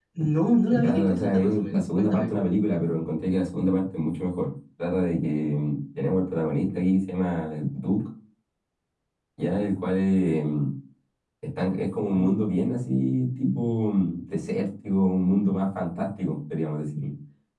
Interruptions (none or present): present